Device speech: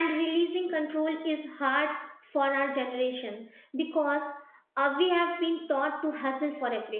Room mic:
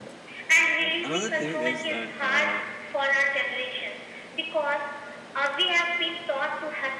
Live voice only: And another thing is that, uh,

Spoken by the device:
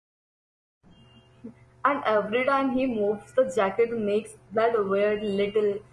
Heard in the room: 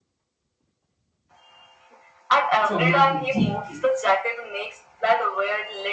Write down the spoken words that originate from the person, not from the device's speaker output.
Traumatic, deeply.

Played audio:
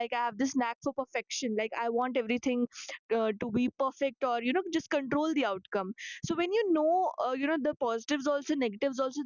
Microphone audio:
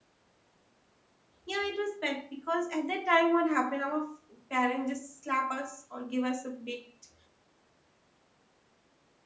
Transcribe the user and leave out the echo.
Yeah, it was bad because at that time, what happened? Our f- parents just slap us or give us a bit,

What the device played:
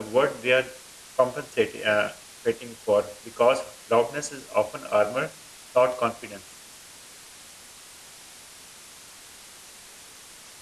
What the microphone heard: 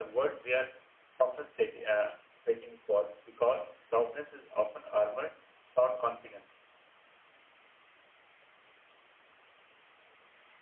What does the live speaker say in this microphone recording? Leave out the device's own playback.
none

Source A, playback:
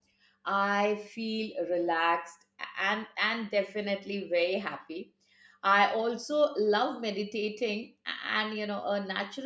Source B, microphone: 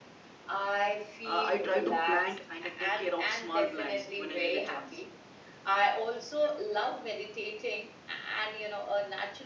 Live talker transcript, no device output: uh, i try to plant and take care of small plants when i get a chance

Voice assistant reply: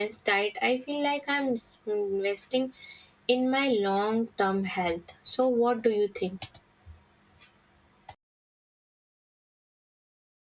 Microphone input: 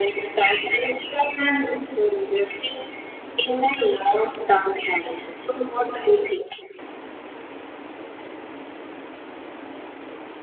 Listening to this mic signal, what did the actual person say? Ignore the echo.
none

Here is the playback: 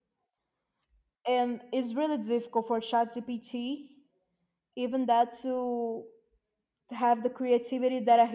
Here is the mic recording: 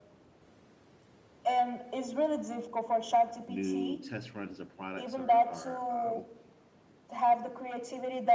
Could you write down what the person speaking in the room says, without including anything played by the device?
new test runs or products or, or um,

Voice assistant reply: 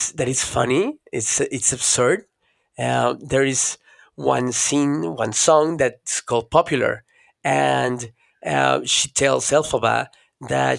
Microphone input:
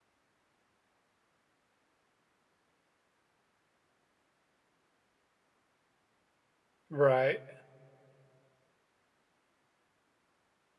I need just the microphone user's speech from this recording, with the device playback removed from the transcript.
Right.

